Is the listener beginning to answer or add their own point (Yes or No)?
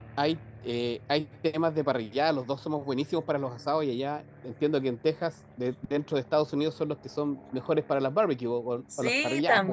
Yes